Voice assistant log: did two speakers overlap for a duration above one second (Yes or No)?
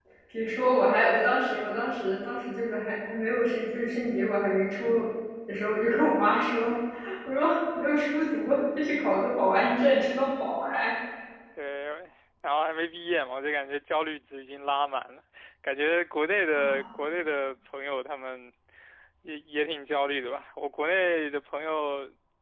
No